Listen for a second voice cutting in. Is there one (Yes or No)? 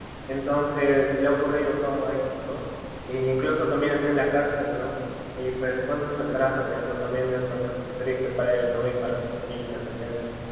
No